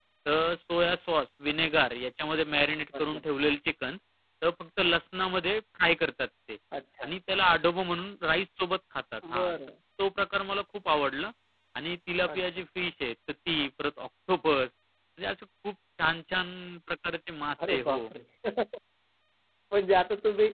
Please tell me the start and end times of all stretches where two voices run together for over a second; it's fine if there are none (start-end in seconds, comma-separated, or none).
none